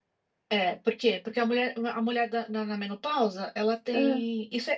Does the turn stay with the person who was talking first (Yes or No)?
Yes